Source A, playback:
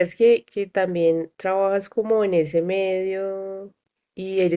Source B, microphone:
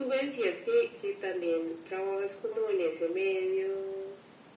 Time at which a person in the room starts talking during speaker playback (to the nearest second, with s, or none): none